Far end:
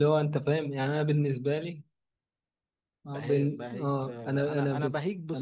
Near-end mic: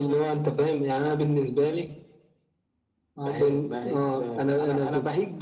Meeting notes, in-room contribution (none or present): none